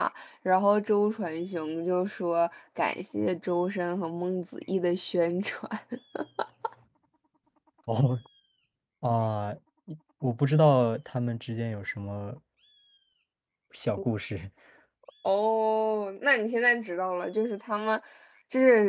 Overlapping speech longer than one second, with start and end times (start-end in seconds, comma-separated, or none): none